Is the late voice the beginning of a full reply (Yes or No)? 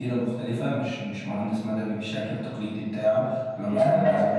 Yes